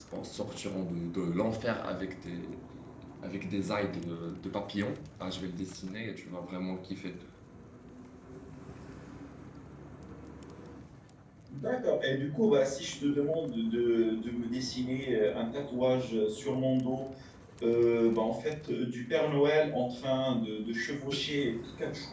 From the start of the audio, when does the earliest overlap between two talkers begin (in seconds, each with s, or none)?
none